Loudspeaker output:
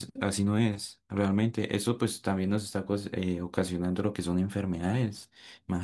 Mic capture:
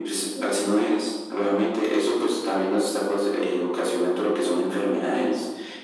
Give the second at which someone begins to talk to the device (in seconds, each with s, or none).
none